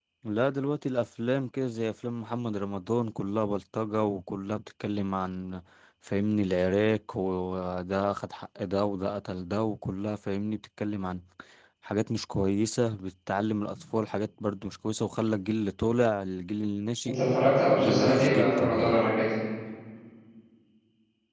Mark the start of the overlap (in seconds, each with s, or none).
17.8 s